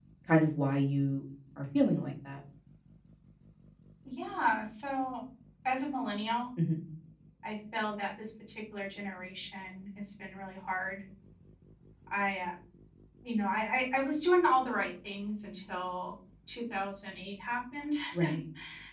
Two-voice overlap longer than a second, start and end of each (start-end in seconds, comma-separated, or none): none